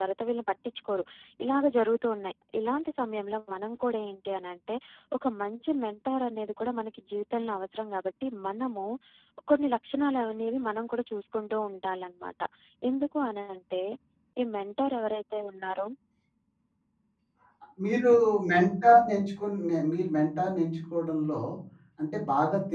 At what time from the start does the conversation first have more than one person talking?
none

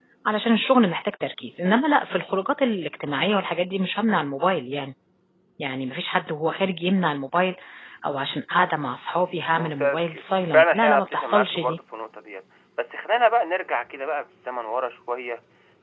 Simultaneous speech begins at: 9.6 s

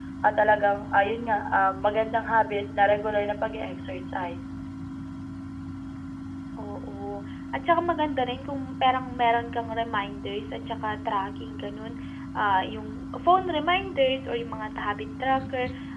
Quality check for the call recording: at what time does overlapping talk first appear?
none

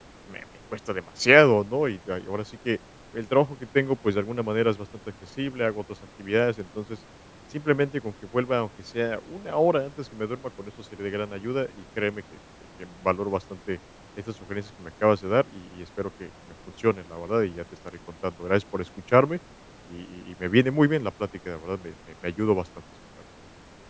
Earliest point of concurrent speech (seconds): none

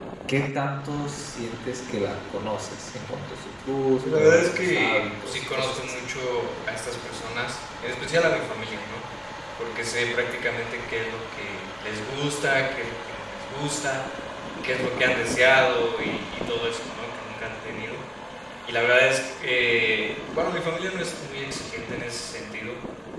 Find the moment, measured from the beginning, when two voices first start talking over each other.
4.0 s

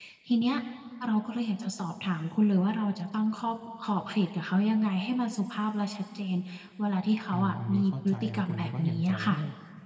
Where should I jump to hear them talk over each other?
7.3 s

